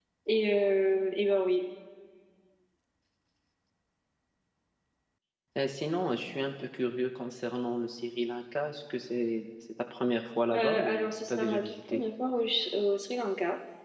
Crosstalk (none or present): present